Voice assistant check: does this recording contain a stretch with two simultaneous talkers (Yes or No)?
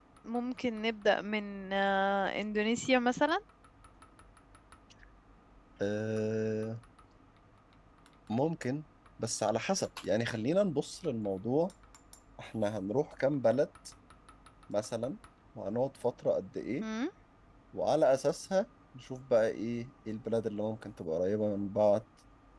No